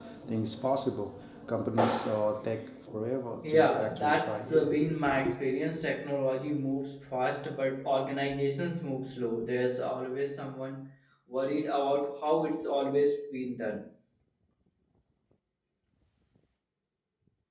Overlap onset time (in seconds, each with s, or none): 3.4 s